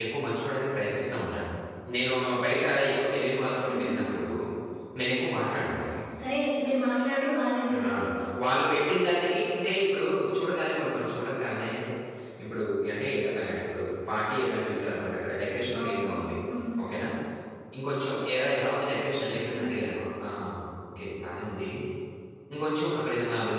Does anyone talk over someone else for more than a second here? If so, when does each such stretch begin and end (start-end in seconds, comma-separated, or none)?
none